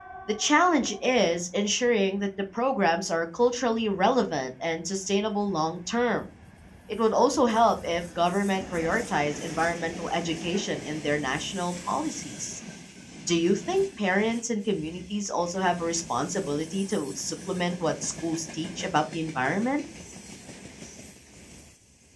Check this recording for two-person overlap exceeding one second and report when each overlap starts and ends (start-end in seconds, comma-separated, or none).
none